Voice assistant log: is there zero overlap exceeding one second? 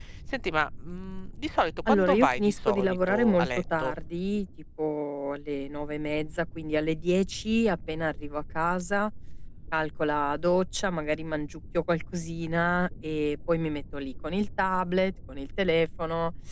No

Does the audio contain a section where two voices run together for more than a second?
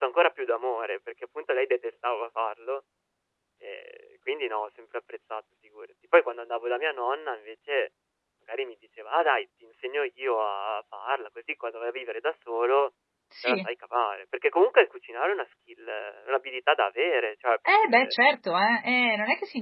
No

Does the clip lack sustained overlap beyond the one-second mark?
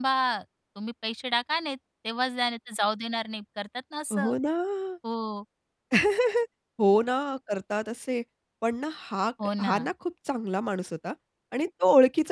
Yes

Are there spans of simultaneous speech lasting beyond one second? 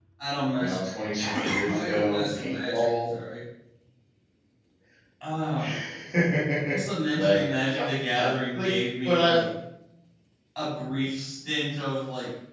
Yes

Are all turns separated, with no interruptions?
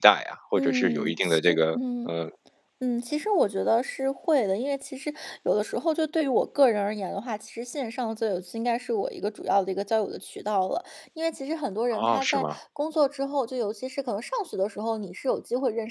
No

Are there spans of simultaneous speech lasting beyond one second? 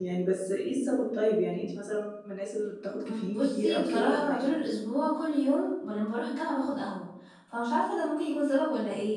Yes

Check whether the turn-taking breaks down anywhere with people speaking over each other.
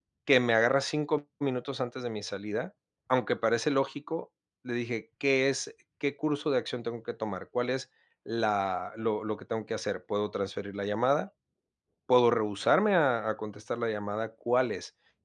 No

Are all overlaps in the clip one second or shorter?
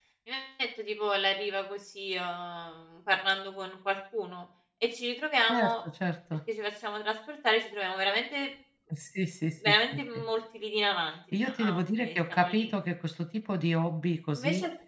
No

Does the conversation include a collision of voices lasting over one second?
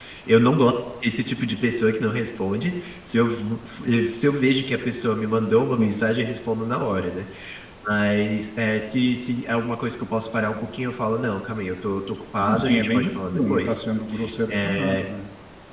Yes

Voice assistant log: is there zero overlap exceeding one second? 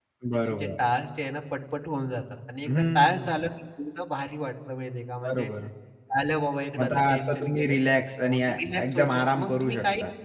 No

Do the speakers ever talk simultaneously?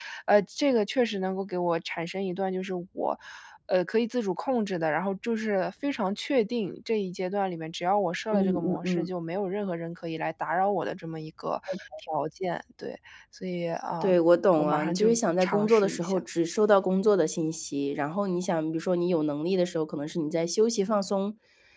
Yes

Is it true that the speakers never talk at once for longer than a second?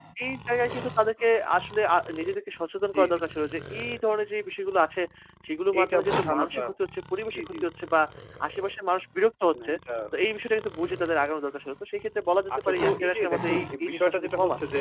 No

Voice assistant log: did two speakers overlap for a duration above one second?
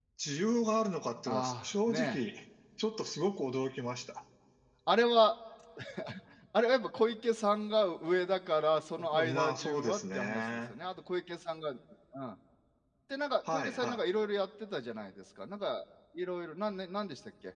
Yes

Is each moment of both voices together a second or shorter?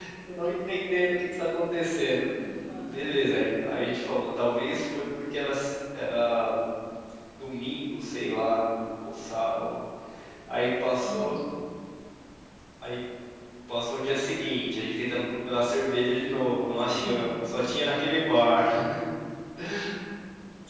Yes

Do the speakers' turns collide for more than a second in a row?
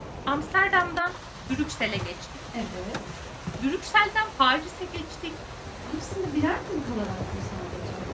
No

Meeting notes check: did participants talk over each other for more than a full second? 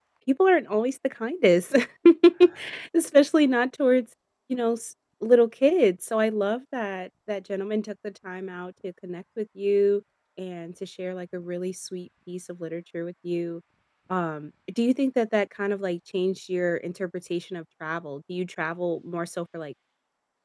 No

